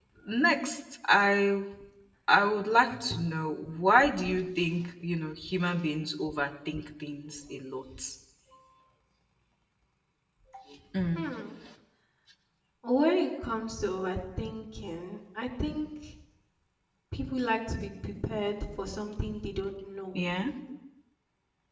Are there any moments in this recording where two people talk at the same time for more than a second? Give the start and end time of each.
none

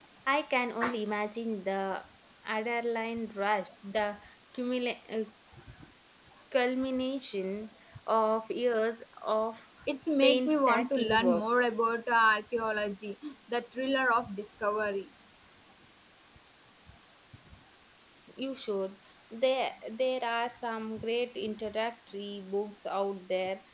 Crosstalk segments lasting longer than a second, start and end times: 10.2-11.4

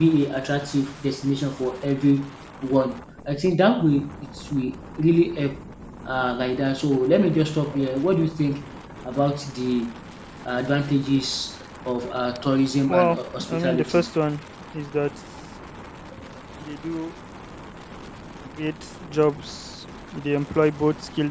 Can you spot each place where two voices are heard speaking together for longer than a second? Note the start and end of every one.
12.9-14.1

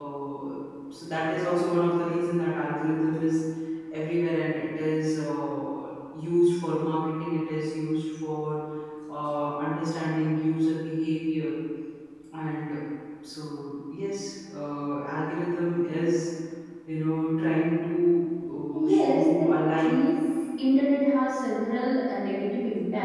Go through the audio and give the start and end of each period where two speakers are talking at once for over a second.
18.7-20.0

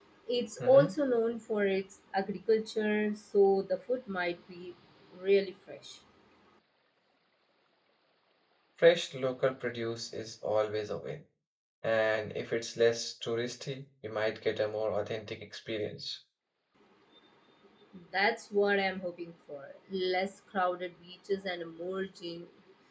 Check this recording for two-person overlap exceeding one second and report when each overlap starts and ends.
none

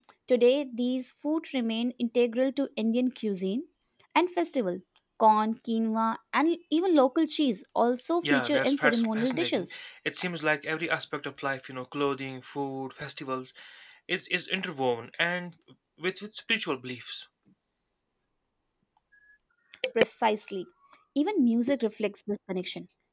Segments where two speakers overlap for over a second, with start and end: 8.2-9.7

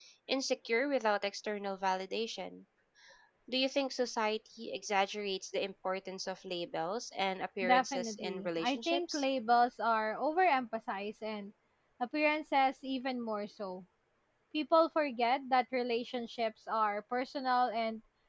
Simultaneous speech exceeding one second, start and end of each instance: 7.6-9.2

